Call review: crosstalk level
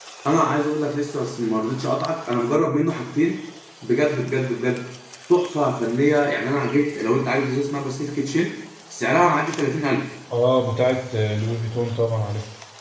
none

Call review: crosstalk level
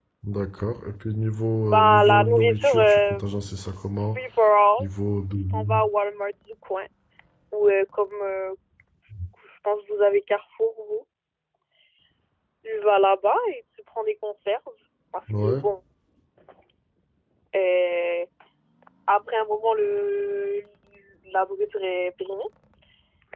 present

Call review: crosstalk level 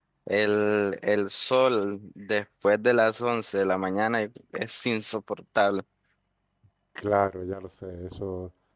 none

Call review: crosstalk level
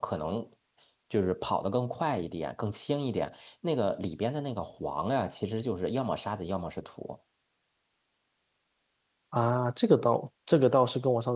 none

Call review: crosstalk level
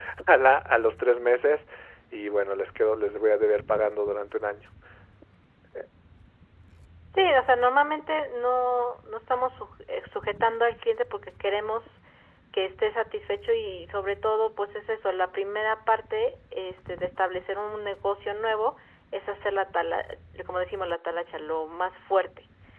none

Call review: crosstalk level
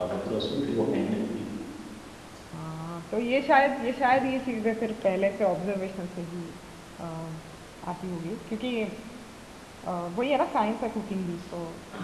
none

